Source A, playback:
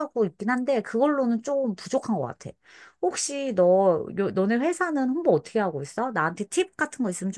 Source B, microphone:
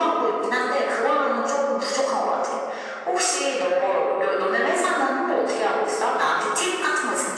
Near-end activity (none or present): none